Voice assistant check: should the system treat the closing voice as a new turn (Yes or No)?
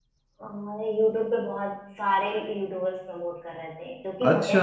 Yes